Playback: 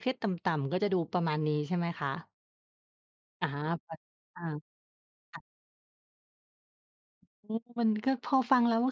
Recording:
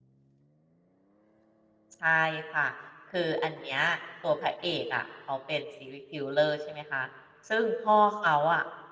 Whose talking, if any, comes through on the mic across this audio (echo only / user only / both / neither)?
user only